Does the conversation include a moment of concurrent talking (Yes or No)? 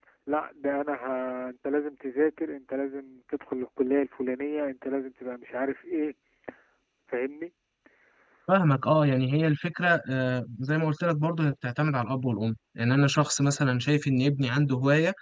No